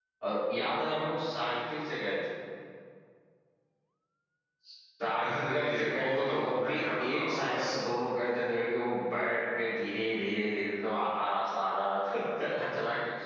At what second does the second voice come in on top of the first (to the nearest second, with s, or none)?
5 s